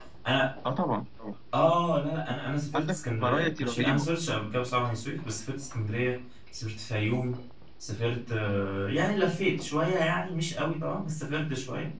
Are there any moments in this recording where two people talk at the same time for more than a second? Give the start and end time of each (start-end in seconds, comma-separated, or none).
2.7-4.0